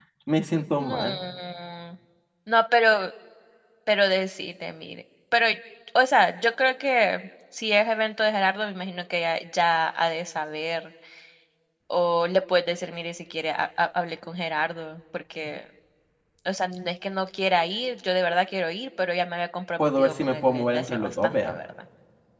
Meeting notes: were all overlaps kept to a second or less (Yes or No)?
No